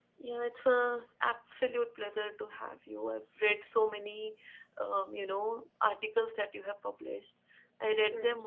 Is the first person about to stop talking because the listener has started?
No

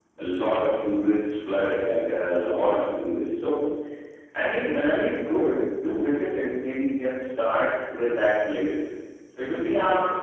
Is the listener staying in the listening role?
No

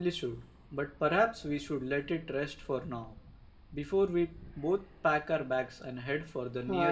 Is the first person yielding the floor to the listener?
Yes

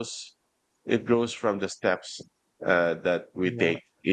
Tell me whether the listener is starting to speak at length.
No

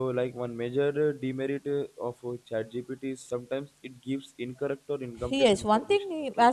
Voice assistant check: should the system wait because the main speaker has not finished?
No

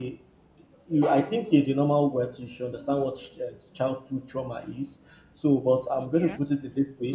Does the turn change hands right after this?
No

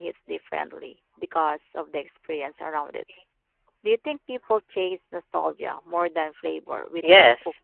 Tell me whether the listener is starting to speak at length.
Yes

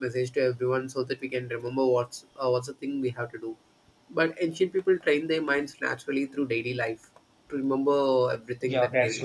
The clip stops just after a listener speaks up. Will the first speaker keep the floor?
No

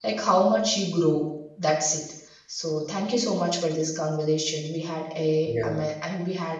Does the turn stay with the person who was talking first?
Yes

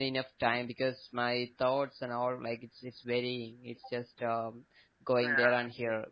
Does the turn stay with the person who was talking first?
Yes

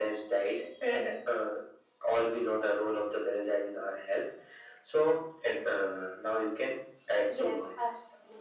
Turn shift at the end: Yes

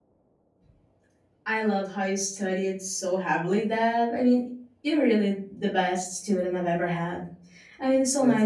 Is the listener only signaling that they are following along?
Yes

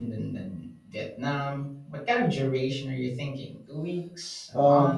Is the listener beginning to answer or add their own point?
Yes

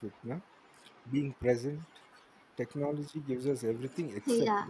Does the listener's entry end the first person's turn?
Yes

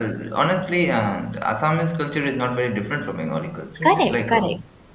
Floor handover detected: Yes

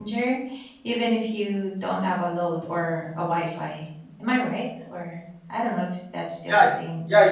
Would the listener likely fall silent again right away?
No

